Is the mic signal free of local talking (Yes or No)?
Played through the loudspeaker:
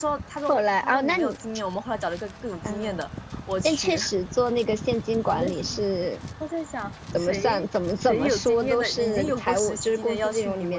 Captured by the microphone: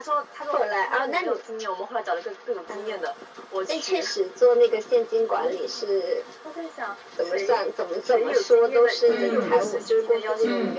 No